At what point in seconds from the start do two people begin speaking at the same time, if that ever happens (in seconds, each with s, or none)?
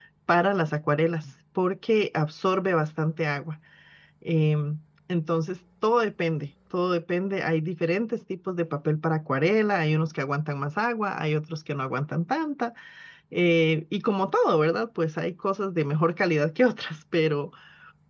none